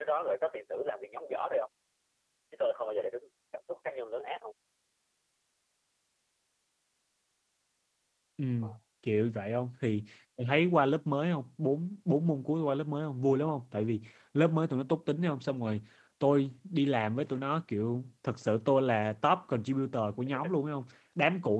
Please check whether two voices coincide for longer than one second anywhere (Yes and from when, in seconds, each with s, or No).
No